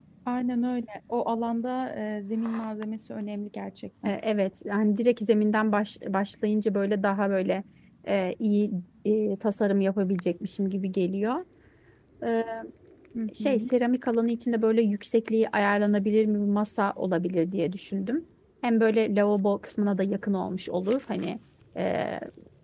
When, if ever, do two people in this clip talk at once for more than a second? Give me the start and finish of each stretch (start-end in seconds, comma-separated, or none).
none